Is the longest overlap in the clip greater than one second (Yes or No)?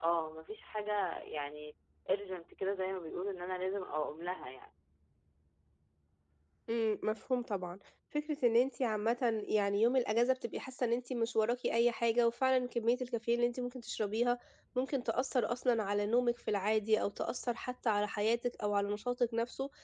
No